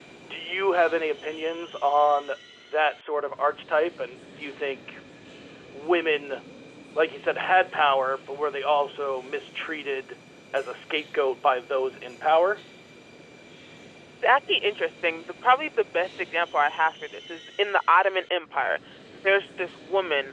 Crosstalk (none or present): none